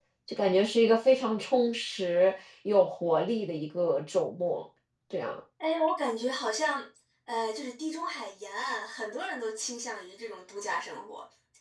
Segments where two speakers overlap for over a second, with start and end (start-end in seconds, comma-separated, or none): none